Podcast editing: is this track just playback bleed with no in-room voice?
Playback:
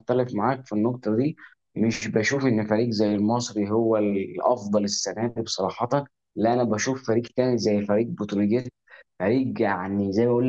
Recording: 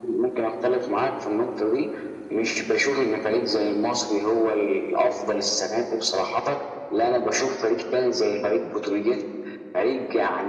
Yes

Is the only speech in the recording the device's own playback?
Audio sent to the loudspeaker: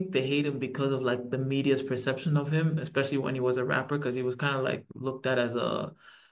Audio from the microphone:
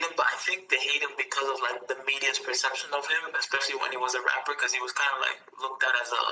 Yes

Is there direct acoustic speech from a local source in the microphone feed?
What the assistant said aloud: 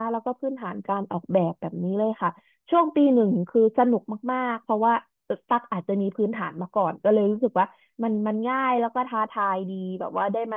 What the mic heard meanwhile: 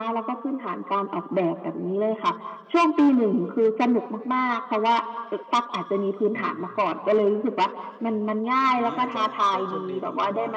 Yes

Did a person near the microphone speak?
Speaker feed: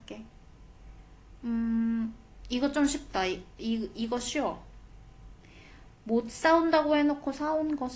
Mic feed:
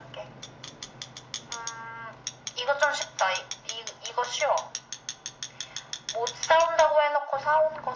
No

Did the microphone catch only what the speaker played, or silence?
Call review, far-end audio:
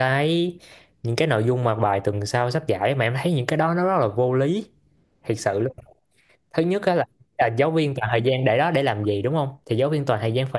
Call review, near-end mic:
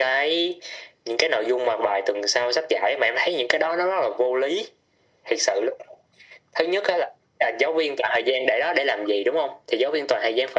Yes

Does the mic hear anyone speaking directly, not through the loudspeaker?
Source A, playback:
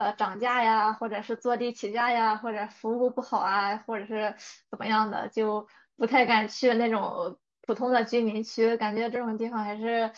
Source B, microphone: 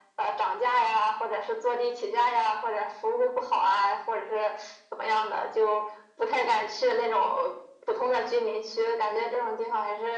No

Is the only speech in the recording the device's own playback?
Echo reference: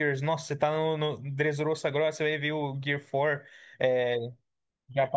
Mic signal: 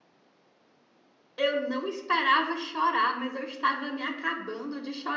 No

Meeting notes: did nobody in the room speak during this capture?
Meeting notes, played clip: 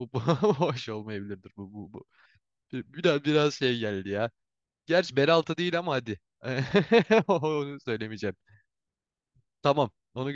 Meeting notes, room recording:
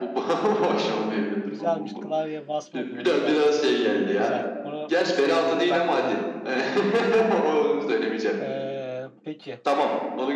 No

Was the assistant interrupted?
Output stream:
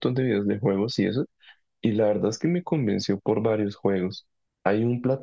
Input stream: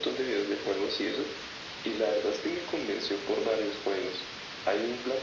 No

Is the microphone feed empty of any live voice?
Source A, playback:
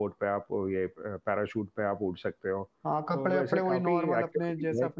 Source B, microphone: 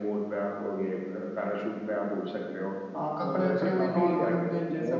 Yes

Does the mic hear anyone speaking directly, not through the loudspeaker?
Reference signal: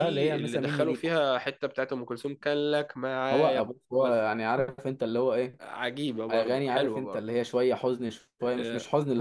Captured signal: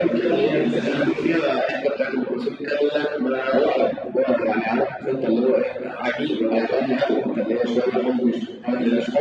No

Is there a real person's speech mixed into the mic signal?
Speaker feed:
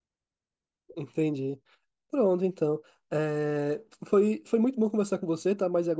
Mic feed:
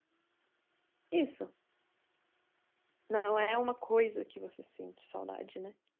Yes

